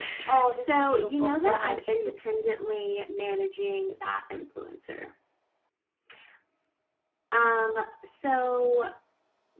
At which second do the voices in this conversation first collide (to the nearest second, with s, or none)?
1 s